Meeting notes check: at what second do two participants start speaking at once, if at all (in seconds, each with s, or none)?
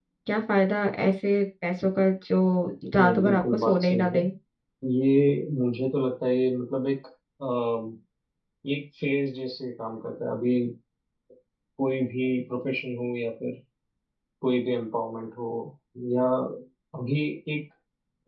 3.0 s